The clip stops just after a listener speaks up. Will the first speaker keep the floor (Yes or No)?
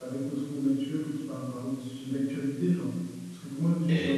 Yes